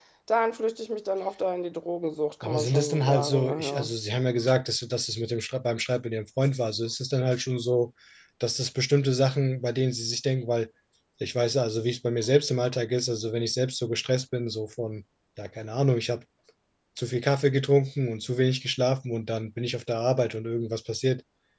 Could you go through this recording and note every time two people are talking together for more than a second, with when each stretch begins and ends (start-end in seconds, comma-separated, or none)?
2.4-3.9